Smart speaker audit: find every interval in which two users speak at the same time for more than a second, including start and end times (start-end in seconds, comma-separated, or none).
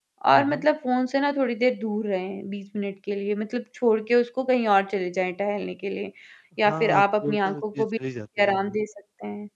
6.6-7.9